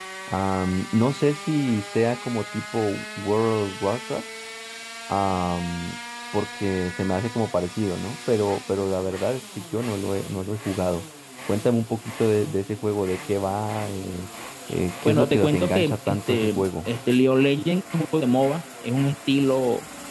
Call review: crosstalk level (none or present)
present